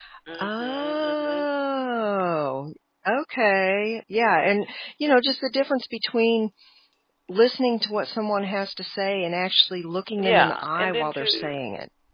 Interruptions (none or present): present